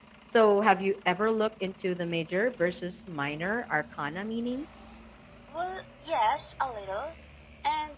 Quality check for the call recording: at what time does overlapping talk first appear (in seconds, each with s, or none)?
none